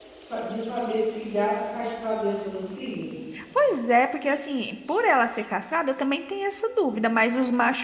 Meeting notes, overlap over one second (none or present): none